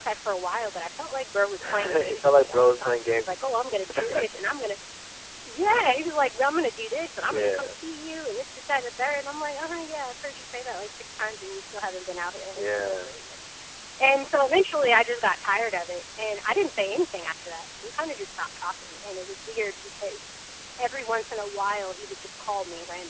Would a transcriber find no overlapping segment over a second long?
No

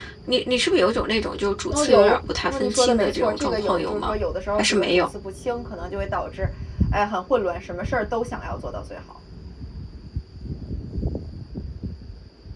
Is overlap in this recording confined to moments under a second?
No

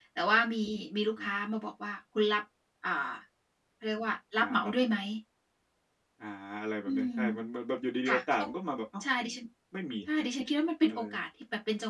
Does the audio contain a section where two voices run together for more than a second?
No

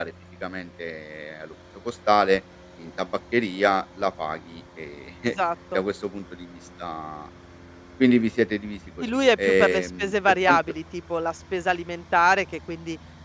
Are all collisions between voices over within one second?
No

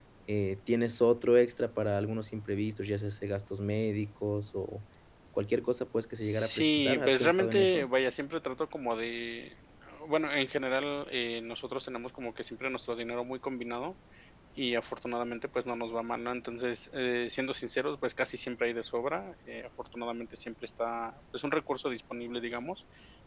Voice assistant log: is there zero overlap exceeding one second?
No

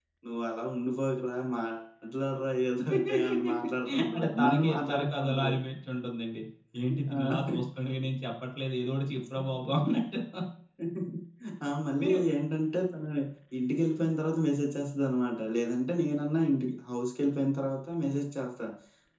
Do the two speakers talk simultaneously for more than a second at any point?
Yes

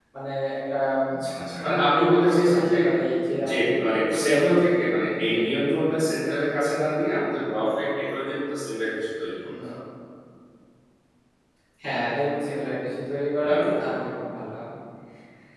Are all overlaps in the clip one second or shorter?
No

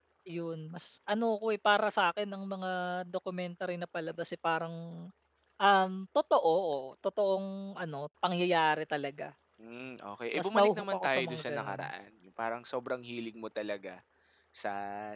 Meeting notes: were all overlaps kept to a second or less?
No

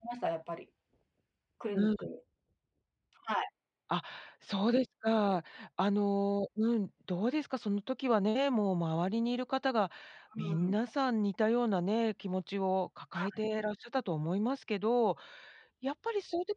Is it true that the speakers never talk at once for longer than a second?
Yes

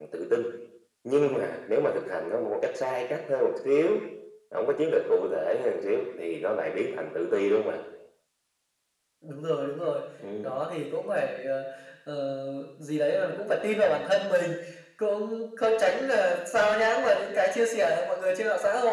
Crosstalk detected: No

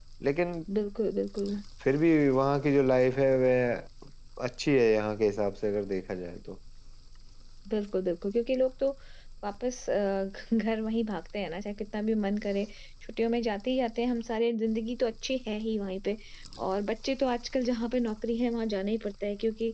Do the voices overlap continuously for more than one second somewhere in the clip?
No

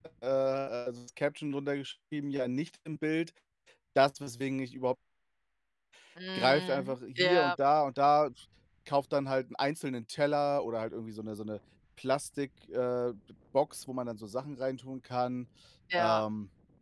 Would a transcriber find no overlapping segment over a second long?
No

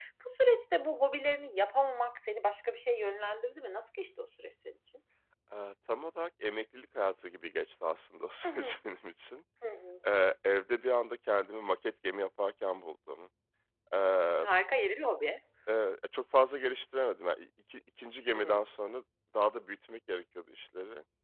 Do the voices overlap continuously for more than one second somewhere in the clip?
No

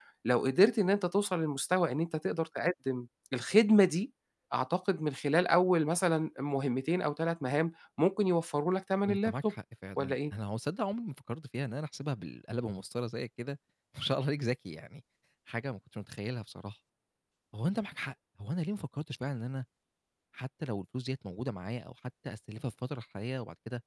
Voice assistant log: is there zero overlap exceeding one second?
Yes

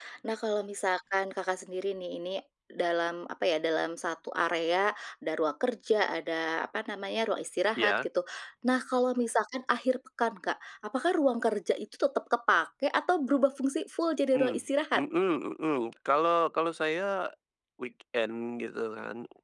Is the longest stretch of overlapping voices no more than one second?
Yes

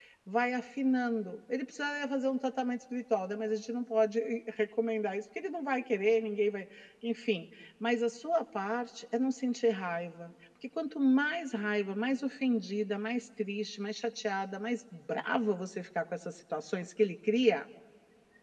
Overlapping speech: No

